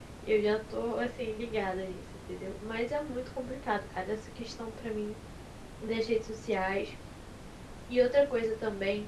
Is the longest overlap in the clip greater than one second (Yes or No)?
No